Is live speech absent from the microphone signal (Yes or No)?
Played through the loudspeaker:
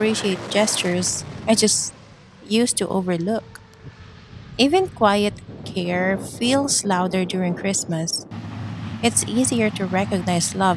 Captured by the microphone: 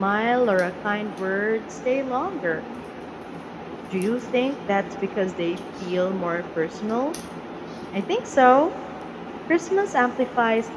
No